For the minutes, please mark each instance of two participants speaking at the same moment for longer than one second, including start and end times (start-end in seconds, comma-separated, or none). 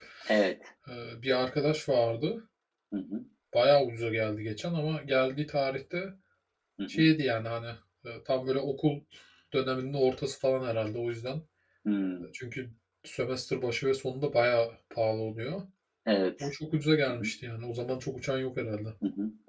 none